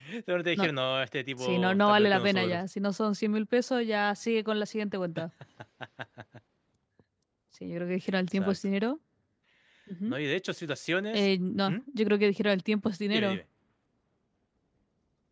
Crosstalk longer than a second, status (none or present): present